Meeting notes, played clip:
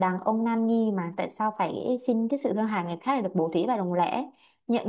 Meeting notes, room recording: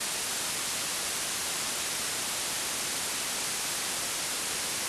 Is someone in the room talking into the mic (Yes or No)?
No